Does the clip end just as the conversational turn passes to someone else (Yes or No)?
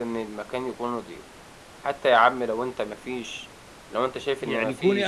Yes